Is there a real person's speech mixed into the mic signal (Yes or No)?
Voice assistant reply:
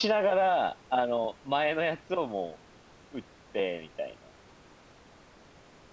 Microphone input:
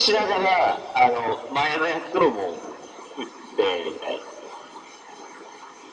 No